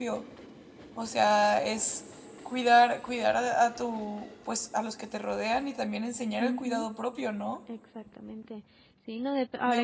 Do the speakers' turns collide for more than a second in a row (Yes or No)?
No